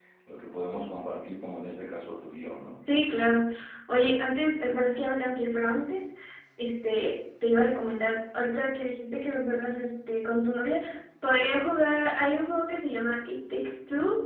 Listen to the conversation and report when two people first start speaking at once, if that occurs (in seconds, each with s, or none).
none